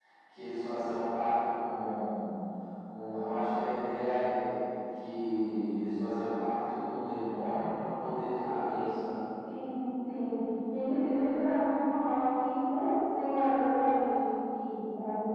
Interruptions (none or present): none